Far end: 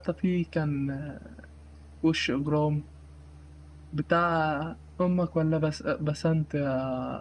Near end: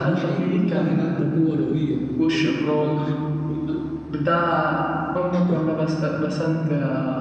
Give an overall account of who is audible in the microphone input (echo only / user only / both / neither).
both